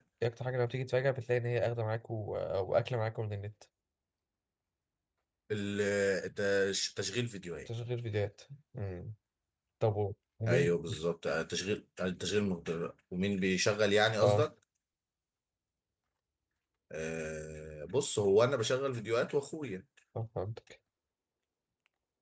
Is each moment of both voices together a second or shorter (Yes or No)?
Yes